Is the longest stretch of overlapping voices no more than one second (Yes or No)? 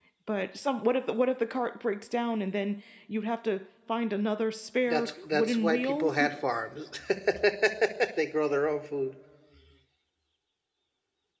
No